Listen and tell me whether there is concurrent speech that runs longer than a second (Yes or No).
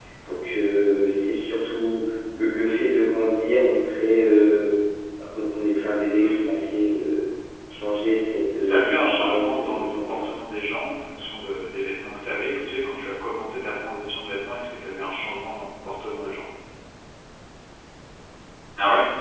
Yes